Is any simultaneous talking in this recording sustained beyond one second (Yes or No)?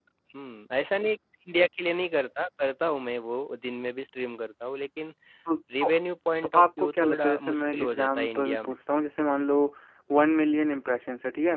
Yes